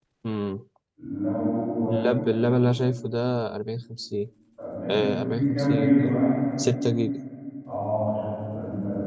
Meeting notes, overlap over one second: present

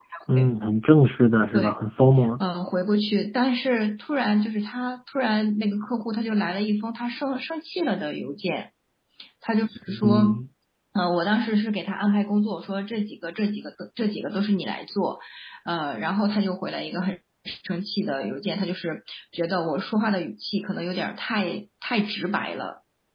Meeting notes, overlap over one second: none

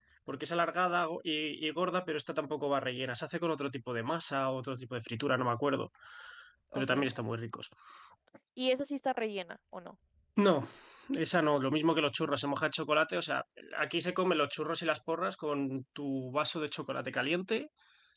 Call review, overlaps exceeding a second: none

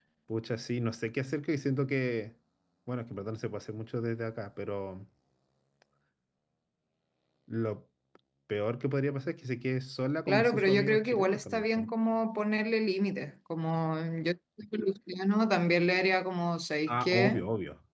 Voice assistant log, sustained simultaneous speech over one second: present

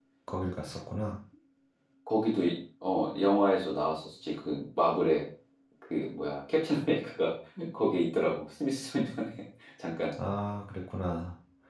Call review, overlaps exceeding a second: none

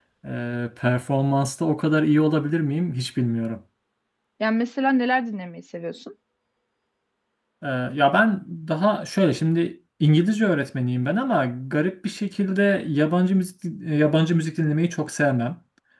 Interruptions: none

